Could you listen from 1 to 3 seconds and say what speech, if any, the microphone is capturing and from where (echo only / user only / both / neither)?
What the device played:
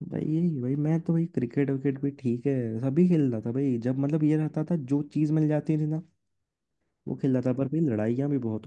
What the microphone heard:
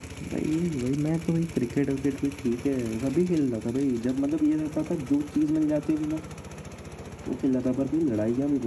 echo only